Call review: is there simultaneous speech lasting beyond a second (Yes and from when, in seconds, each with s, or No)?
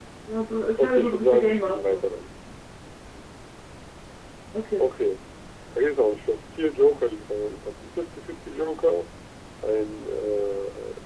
Yes, from 0.8 s